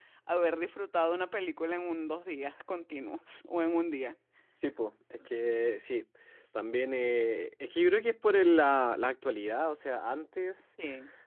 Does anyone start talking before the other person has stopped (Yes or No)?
No